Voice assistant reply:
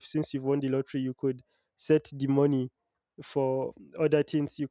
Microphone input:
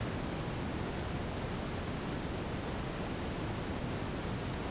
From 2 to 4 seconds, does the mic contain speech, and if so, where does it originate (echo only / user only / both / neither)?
neither